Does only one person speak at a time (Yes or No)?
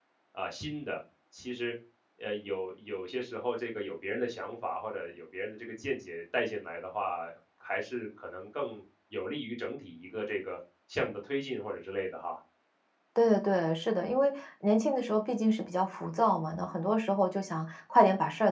Yes